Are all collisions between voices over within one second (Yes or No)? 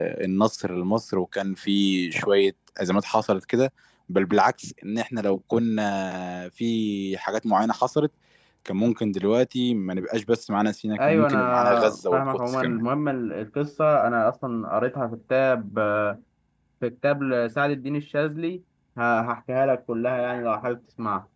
No